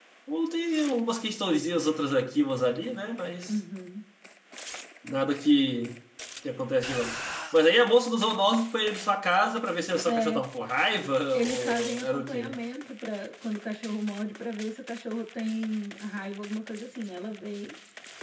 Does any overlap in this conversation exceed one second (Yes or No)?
Yes